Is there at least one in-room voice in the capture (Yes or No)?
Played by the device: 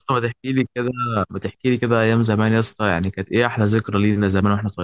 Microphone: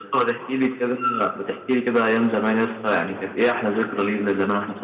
No